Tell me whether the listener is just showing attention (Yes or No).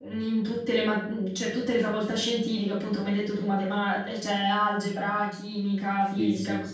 No